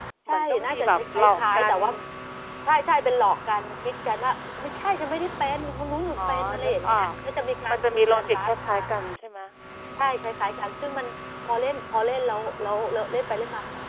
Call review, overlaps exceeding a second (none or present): present